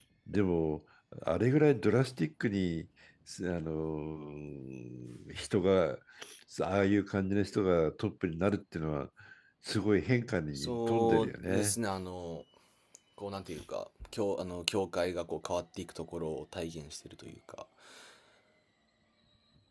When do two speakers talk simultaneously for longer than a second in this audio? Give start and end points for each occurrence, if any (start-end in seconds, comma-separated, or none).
10.5-11.8